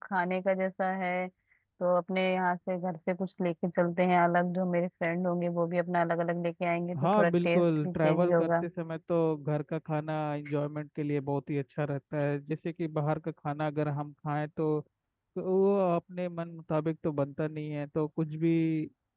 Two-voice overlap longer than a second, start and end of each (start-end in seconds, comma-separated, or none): 7.0-8.7